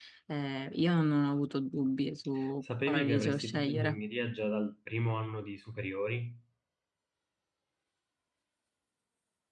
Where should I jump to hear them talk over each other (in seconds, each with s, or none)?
2.6 s